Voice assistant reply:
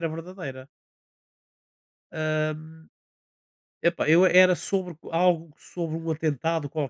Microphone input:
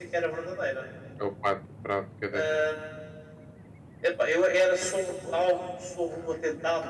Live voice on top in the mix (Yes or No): No